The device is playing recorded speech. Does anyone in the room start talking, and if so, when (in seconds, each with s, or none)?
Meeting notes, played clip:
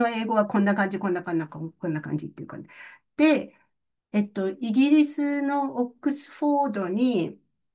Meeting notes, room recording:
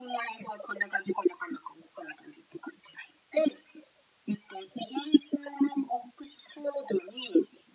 none